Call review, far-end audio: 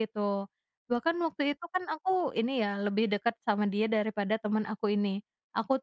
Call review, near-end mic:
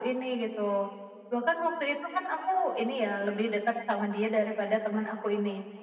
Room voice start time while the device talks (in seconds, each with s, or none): none